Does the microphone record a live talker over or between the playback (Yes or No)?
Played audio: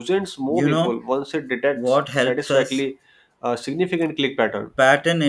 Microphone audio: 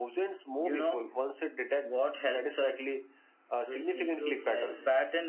Yes